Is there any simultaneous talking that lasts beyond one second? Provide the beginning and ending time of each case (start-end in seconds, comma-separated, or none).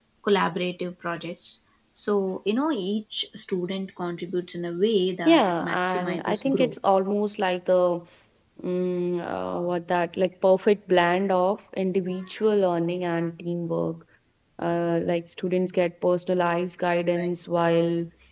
5.2-6.8